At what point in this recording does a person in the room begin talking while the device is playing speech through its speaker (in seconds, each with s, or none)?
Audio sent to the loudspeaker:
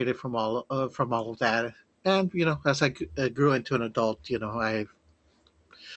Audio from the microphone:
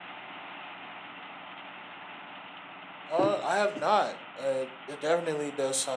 3.1 s